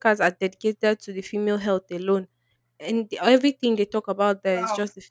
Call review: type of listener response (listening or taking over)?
listening